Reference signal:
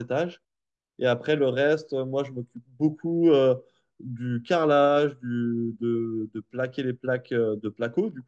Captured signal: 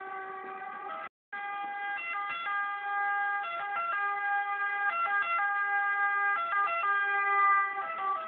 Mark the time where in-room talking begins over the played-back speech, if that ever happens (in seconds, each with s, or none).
none